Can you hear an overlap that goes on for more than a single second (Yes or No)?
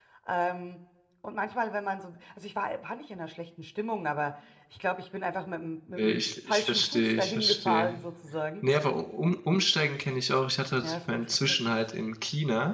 Yes